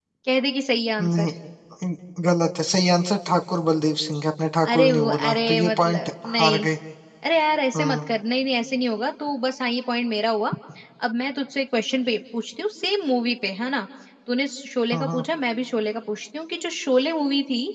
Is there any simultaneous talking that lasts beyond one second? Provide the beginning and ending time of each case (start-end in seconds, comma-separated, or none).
4.7-6.7